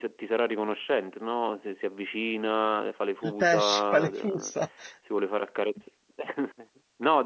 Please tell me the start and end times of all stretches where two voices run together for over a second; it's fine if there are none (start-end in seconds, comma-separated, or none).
3.2-4.5